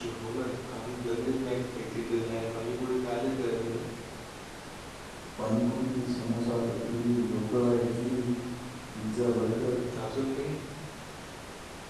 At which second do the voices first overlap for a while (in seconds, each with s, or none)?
none